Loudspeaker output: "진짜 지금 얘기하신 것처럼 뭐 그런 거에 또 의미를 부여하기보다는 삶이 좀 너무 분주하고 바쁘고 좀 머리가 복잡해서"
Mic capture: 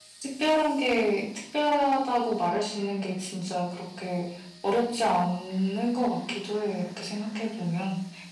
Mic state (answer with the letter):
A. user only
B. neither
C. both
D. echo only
A